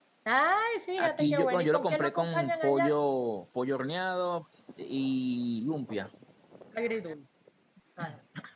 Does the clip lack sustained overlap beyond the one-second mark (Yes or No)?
No